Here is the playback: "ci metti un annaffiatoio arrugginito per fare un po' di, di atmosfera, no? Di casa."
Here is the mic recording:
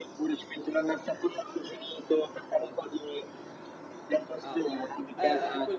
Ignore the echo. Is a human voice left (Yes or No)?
Yes